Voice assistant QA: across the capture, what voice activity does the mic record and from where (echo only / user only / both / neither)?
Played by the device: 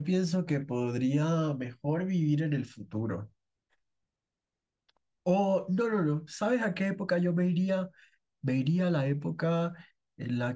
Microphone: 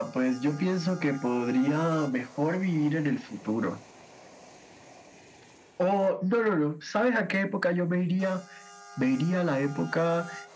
echo only